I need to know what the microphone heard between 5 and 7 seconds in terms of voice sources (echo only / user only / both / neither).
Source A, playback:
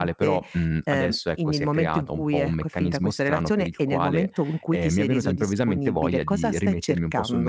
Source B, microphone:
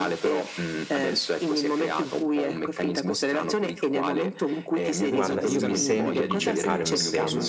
both